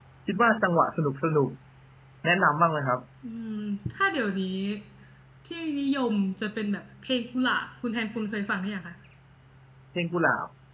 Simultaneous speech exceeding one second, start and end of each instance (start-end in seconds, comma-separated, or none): none